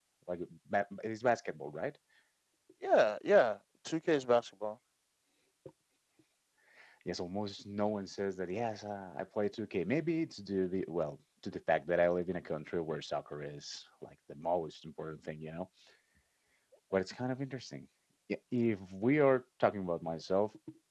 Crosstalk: none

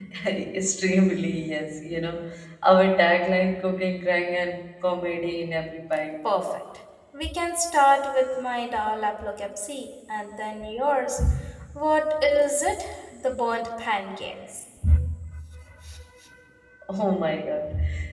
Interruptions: none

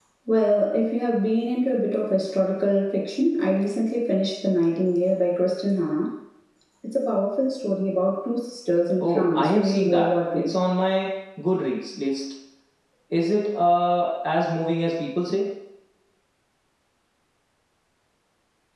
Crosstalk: present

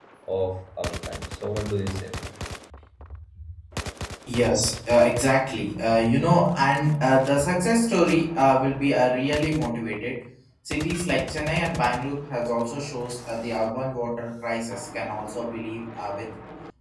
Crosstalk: none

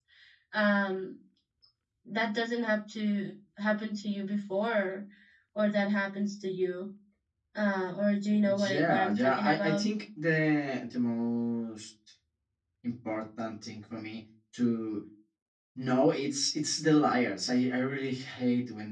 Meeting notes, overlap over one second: present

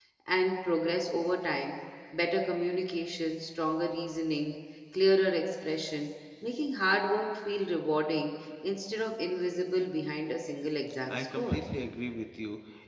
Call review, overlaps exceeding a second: none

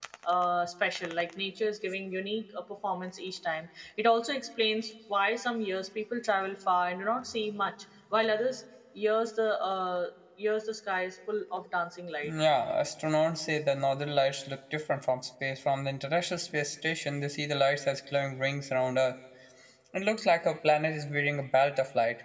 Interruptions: none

